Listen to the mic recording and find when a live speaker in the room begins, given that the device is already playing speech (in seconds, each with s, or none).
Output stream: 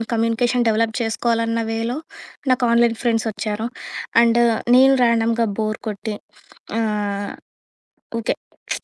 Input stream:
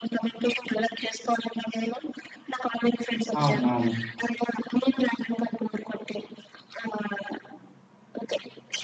3.4 s